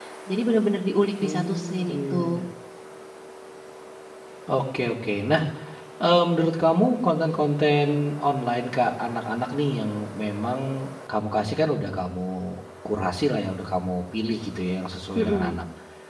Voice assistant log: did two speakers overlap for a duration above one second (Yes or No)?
Yes